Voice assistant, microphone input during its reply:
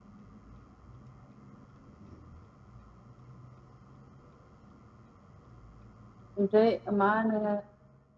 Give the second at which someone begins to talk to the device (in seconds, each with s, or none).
6.4 s